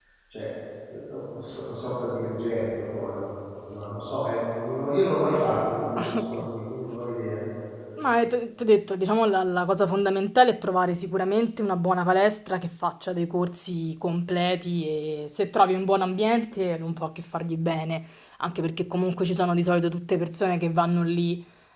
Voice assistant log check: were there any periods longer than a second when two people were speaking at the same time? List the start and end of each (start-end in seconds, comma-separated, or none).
none